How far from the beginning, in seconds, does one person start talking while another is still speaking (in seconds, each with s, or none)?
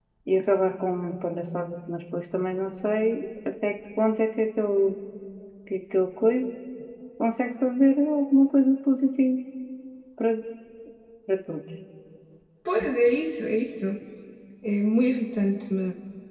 none